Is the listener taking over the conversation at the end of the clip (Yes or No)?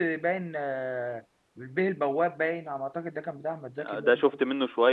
Yes